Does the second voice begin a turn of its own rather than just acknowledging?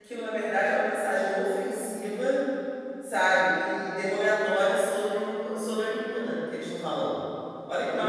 Yes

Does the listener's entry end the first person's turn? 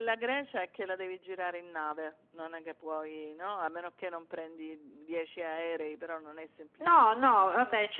Yes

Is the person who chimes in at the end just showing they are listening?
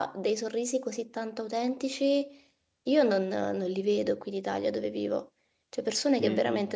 Yes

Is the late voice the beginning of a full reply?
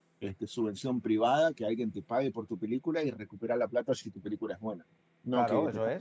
Yes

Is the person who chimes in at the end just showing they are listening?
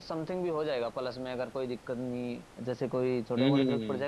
Yes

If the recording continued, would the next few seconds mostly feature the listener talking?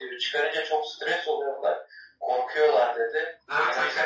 Yes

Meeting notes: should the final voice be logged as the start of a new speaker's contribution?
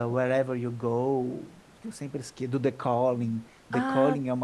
No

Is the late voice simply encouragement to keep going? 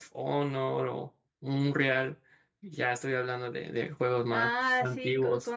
No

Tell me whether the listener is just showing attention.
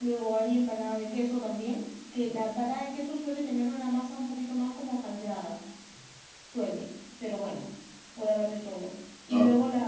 Yes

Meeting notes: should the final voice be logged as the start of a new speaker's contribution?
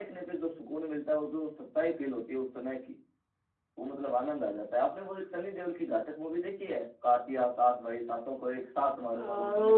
Yes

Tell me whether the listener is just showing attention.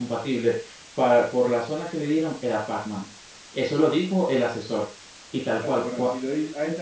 No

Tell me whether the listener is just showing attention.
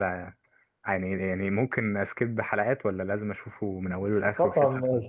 No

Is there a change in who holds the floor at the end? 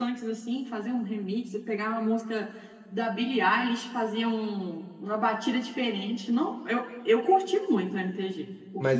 Yes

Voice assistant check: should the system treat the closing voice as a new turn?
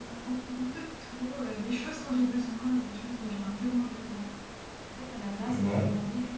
No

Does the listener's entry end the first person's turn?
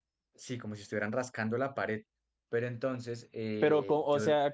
Yes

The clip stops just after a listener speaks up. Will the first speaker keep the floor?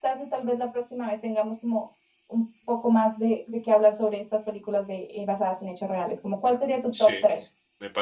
No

